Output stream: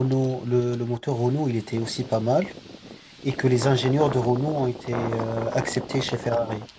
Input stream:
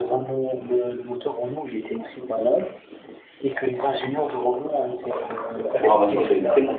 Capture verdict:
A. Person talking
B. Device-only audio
A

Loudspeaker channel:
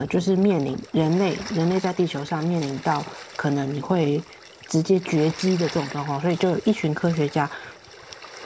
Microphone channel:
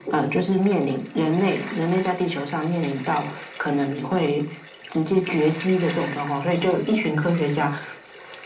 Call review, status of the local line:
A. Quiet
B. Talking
A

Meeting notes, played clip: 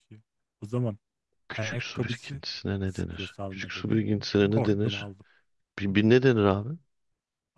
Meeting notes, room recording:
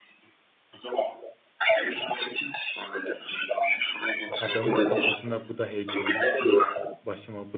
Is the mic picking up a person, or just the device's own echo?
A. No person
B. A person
B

